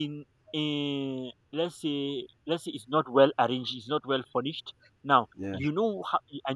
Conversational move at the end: listening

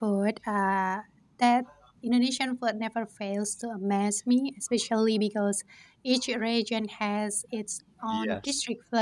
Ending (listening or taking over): listening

